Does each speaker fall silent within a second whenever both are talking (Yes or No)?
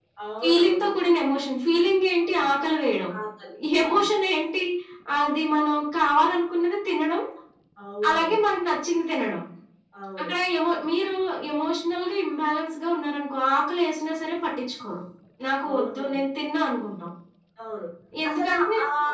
Yes